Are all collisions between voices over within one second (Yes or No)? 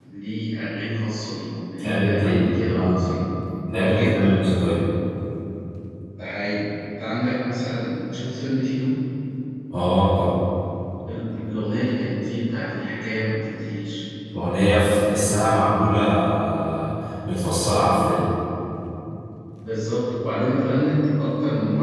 No